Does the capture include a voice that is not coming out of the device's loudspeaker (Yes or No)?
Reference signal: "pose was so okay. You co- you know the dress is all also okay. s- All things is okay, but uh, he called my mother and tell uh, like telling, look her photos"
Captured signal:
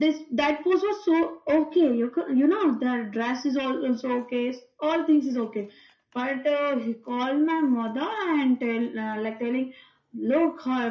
No